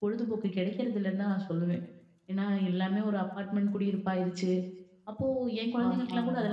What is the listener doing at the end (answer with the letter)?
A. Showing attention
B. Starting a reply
A